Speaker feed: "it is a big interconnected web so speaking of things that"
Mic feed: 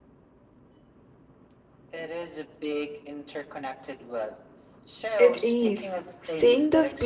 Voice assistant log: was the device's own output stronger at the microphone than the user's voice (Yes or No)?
No